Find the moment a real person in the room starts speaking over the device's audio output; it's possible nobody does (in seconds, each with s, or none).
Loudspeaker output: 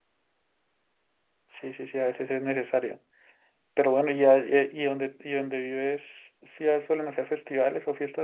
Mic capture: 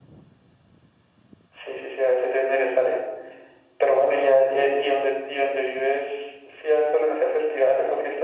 none